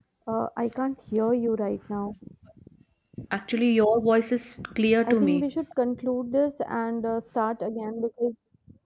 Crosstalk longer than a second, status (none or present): none